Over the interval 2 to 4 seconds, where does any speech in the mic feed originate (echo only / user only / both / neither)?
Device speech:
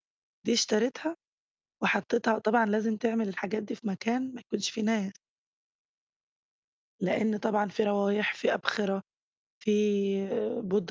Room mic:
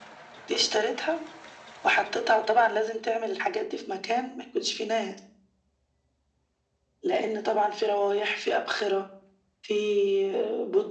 echo only